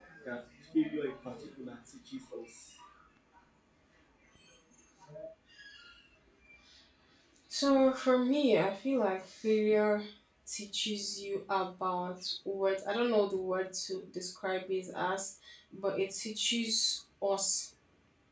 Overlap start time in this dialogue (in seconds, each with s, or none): none